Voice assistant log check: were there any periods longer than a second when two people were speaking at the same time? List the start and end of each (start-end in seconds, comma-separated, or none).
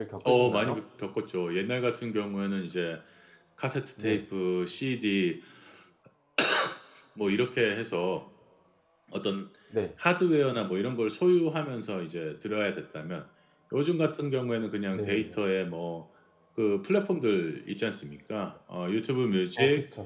none